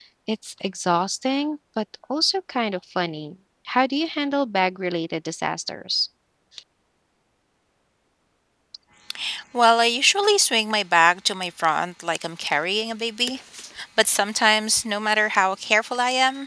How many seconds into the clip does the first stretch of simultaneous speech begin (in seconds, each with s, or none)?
none